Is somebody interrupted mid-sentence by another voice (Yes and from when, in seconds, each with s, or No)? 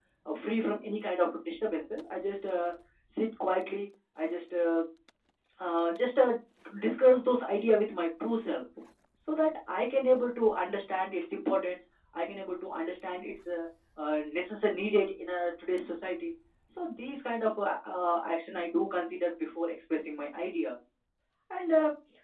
No